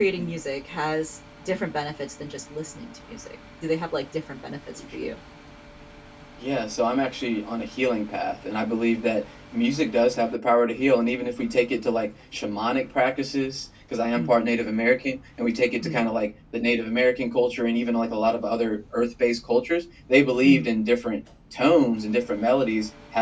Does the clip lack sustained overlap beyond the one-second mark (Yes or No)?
Yes